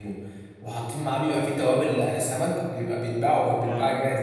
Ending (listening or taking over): listening